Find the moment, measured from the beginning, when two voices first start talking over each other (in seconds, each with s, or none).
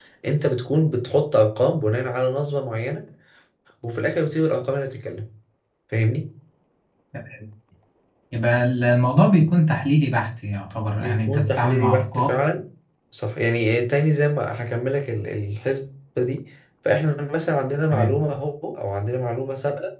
11.0 s